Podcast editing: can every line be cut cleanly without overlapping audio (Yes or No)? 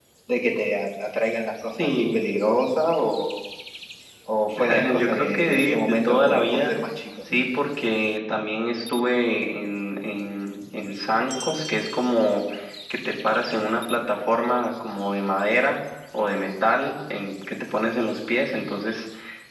No